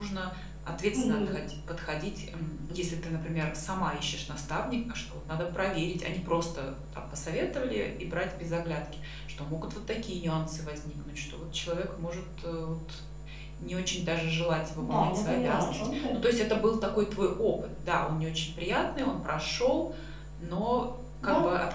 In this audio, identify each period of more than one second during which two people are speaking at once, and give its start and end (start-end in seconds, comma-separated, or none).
14.8-16.2